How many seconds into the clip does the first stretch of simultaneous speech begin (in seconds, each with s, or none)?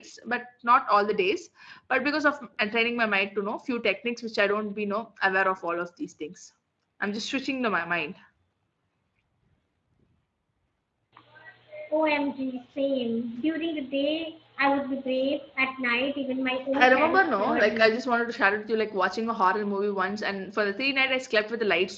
16.7 s